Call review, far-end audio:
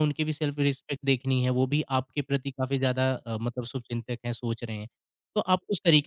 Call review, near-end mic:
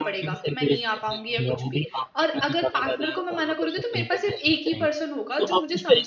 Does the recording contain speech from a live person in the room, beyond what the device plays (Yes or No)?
Yes